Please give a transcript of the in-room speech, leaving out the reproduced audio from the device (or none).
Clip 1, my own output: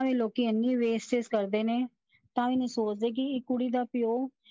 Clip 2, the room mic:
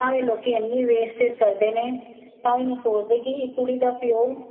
none